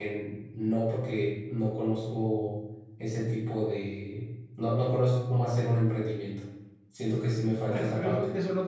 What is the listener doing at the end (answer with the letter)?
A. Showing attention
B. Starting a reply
B